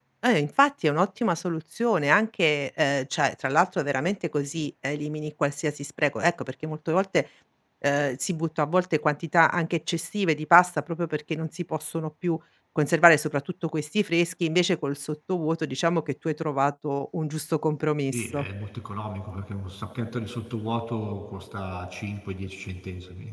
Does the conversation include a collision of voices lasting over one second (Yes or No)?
No